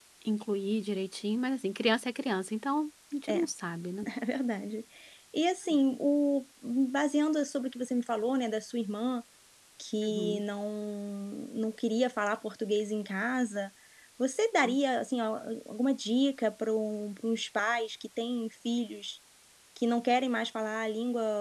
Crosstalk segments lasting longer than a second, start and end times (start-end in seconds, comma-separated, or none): none